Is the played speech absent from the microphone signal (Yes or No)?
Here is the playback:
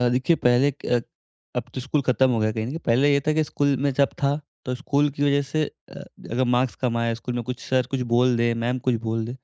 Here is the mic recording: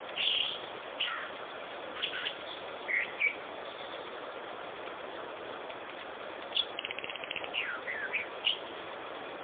Yes